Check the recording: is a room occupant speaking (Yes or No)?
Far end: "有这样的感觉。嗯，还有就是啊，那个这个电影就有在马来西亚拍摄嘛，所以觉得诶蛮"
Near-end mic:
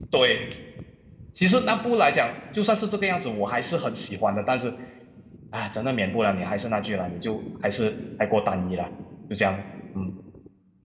Yes